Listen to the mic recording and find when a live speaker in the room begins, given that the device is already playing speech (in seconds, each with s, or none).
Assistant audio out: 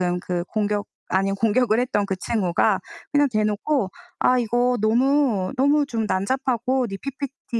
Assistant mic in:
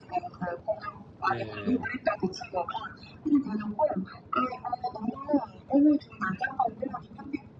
1.2 s